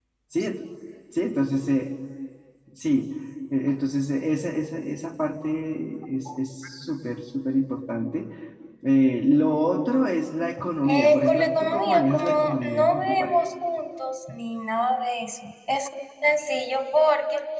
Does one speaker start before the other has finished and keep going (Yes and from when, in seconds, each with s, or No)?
Yes, from 10.9 s